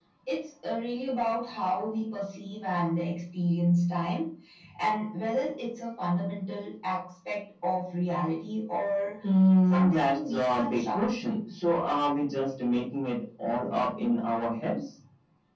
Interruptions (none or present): present